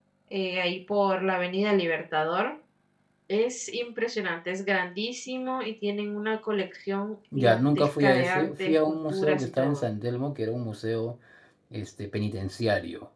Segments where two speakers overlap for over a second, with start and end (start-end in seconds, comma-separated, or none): 7.4-9.8